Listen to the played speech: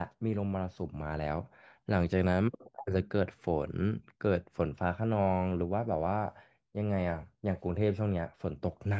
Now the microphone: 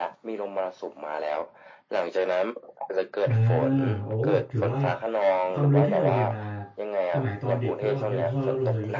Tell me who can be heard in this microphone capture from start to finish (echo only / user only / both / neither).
both